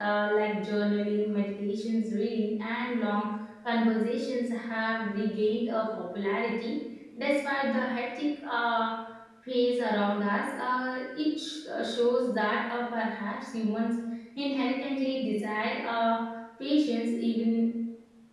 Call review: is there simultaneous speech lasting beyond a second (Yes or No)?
No